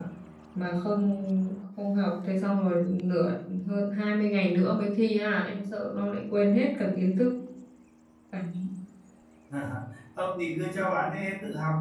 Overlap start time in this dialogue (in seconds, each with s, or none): none